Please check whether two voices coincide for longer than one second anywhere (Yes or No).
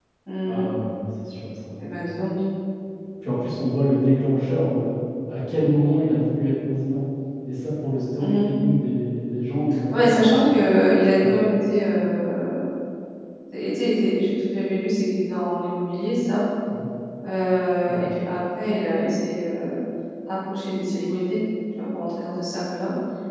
No